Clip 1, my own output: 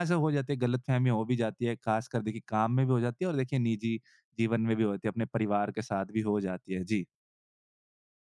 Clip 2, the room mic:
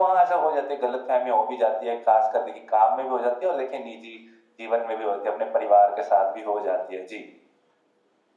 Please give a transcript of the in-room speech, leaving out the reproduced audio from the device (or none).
none